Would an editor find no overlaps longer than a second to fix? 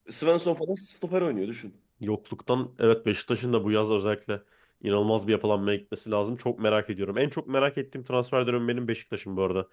Yes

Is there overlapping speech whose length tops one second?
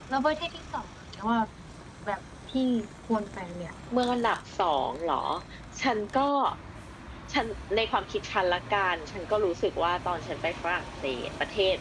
No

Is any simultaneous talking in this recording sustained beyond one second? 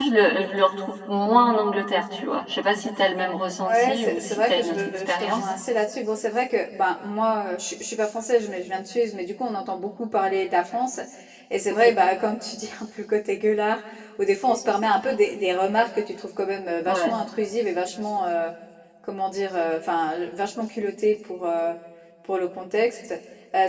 Yes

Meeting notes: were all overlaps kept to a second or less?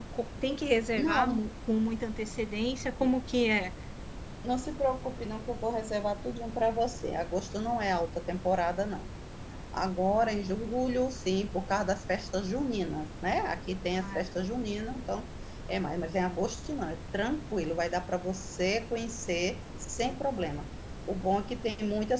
Yes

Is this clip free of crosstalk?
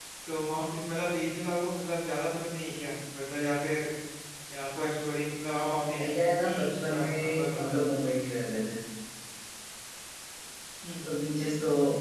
No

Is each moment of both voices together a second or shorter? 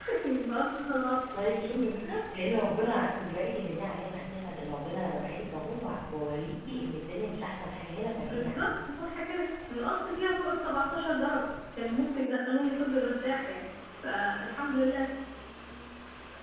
Yes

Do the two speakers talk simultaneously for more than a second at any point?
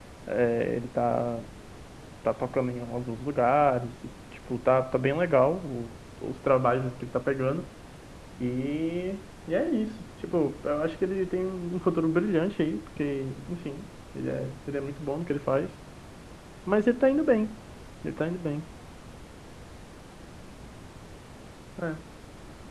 No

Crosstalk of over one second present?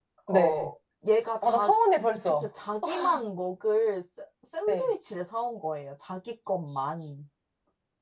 No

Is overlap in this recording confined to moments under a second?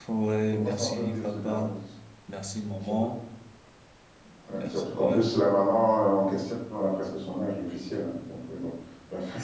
No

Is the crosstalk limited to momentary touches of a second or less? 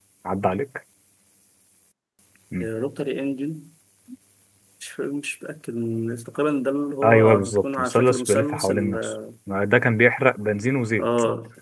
No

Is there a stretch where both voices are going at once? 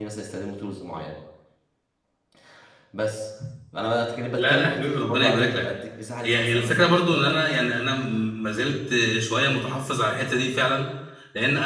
Yes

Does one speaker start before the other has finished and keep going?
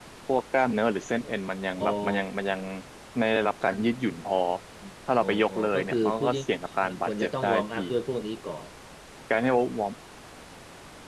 Yes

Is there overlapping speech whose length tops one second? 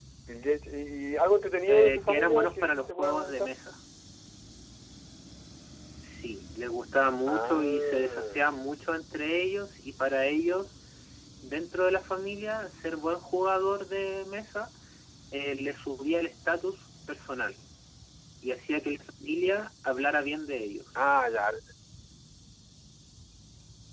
Yes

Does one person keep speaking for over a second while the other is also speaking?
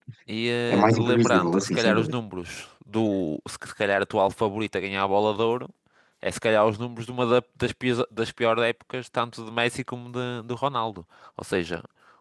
Yes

